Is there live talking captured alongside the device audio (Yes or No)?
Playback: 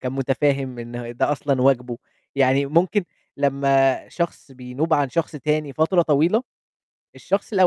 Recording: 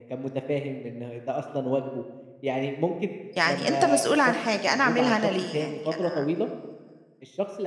Yes